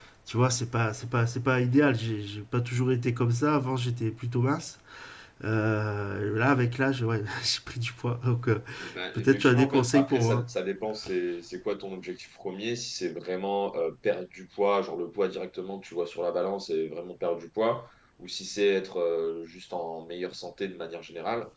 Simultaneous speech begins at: 9.1 s

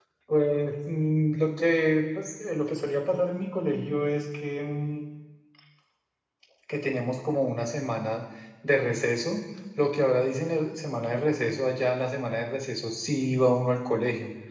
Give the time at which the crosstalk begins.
none

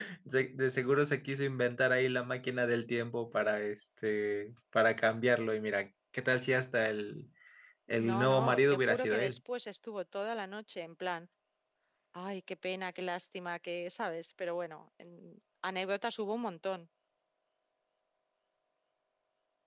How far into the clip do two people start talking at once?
8.0 s

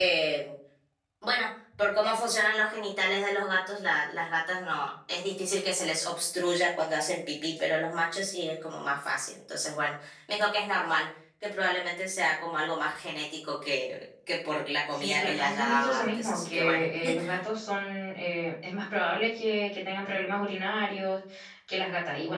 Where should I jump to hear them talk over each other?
14.9 s

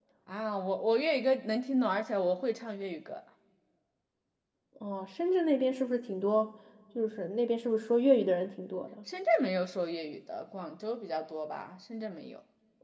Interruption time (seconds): none

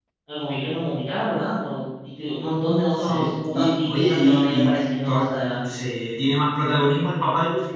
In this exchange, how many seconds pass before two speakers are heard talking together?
3.0 s

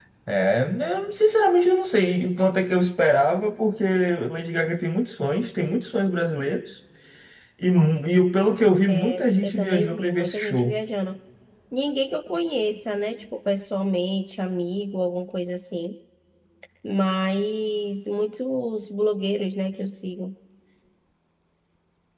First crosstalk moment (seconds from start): 8.9 s

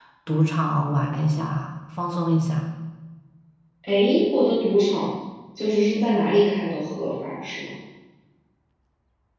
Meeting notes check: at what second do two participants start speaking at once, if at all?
none

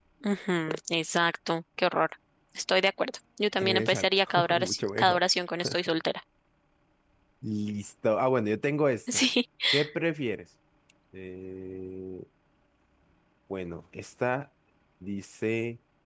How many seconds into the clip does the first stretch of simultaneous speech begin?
3.6 s

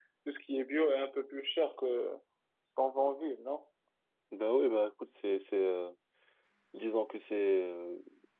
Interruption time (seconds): none

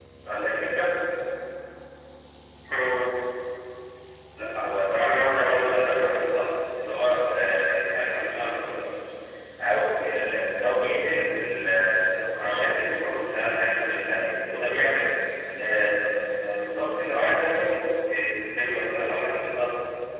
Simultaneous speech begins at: 4.9 s

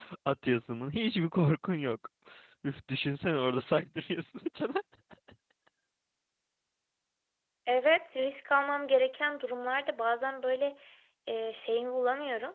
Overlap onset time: none

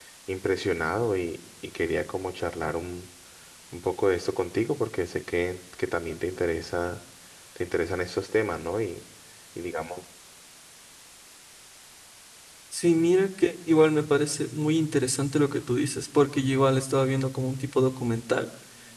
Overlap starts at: none

